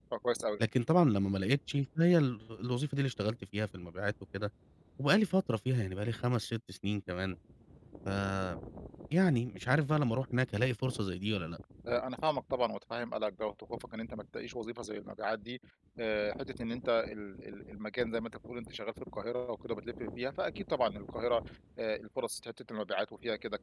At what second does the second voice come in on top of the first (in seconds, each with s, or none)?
none